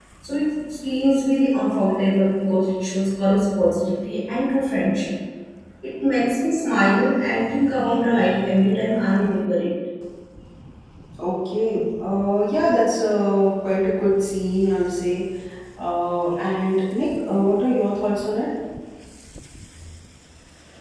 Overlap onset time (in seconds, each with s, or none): none